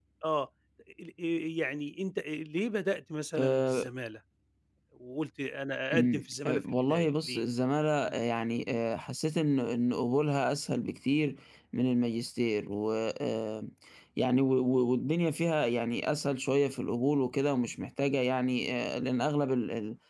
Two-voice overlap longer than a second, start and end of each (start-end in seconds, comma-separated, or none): 5.9-7.4